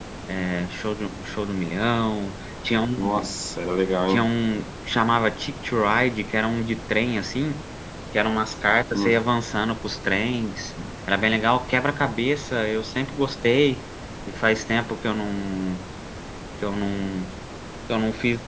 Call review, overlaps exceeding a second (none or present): none